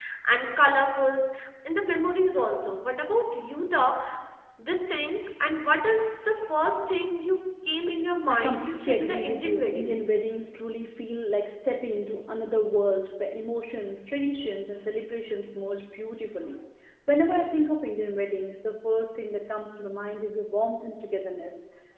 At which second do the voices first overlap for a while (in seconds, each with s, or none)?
8.2 s